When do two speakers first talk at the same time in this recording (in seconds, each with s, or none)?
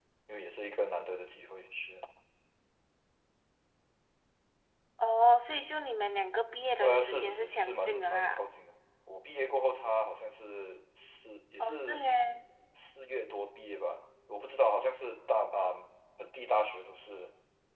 6.8 s